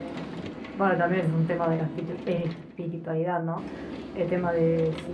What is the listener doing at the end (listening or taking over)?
listening